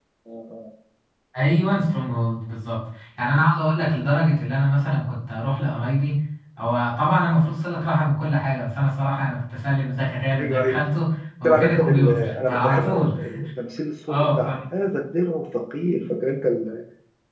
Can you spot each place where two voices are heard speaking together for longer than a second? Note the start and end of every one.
11.4-13.1

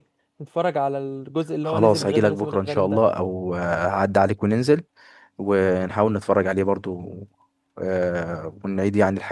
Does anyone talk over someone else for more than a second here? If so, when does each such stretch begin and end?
1.7-3.0

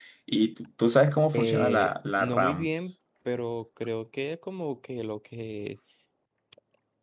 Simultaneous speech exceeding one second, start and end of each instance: 1.3-2.7

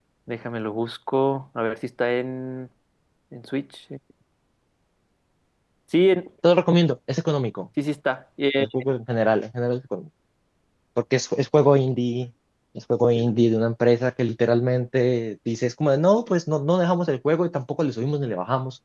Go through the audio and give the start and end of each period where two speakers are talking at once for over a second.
none

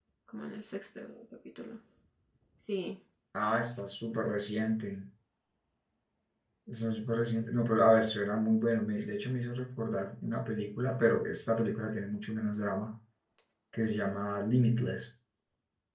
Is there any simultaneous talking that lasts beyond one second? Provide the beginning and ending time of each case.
none

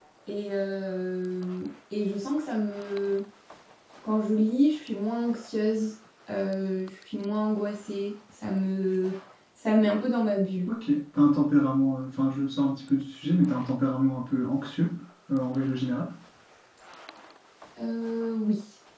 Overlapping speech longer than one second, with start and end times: none

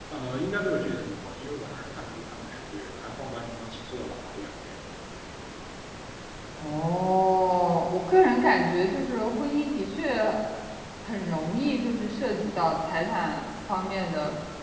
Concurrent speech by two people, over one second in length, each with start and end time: none

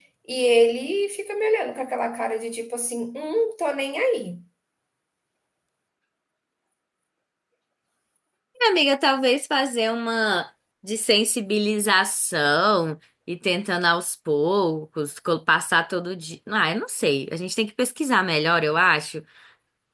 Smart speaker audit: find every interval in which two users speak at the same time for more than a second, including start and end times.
none

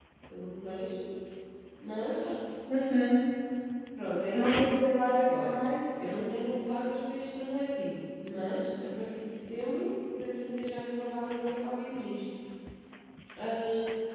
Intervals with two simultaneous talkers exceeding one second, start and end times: 4.3-5.6

